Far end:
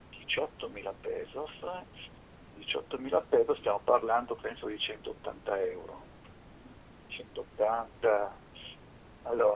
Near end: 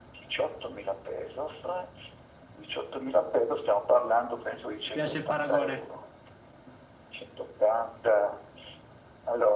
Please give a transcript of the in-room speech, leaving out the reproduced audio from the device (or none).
mi piace il paragone.